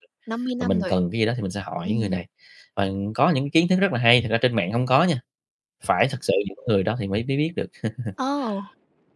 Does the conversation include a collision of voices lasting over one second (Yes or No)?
No